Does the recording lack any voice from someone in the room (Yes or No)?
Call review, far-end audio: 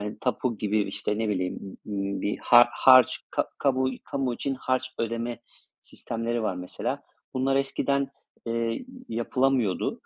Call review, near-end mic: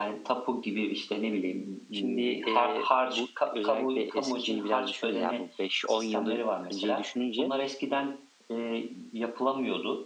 No